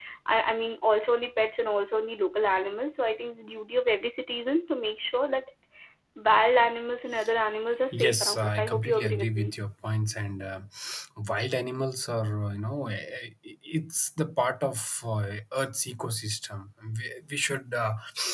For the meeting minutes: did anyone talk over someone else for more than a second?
Yes, from 7.9 s

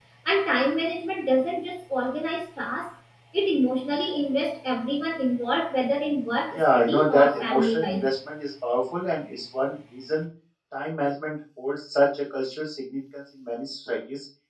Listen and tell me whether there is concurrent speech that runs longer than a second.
Yes, from 6.5 s

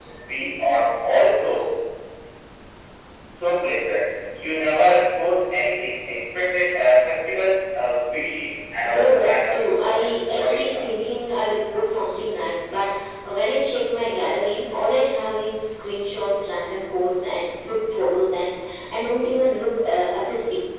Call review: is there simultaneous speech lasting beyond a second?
Yes, from 8.8 s

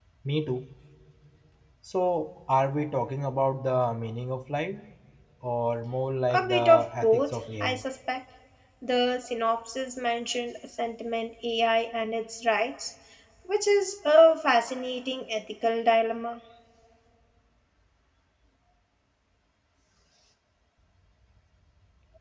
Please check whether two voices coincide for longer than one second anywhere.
Yes, from 6.3 s

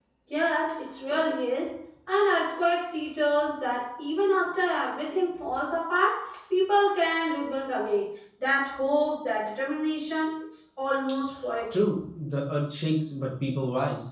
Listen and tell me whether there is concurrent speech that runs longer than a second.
No

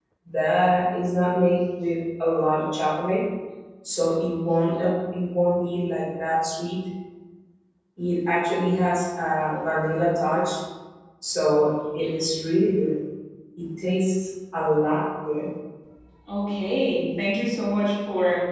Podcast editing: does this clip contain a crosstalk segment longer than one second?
No

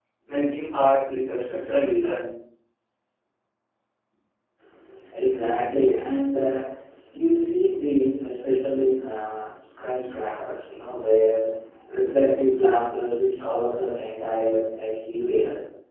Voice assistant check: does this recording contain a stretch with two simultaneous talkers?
No

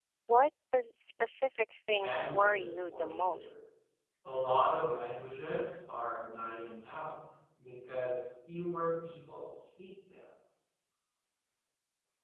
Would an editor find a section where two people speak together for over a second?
Yes, from 2.0 s

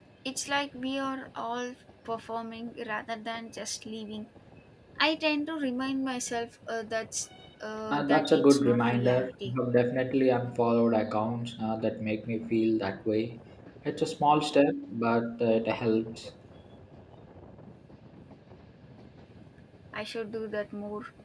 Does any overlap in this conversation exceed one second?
Yes, from 7.9 s

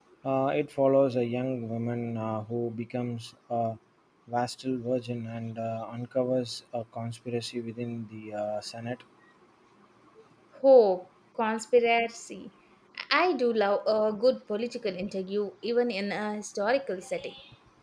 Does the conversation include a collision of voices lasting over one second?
No

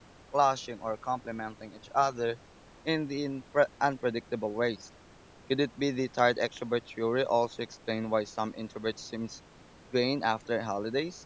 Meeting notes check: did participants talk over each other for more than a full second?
No

